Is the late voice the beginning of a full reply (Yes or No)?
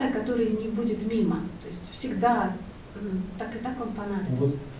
Yes